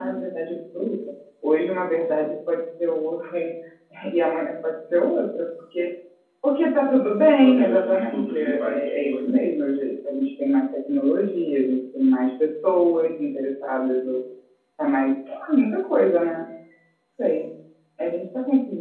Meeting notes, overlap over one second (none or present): present